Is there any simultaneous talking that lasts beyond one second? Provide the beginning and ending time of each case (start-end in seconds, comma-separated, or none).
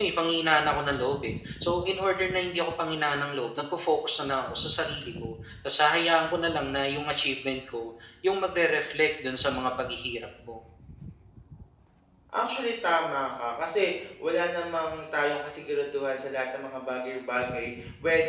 none